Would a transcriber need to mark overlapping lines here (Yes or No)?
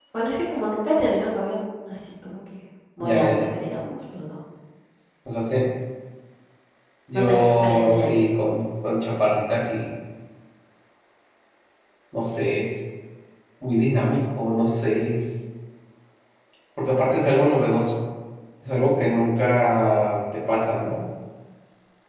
Yes